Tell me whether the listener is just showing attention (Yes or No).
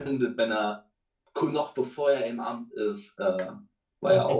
No